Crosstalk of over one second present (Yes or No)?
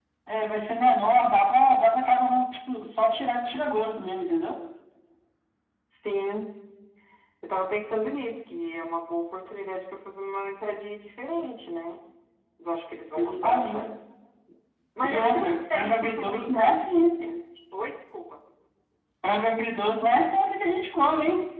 Yes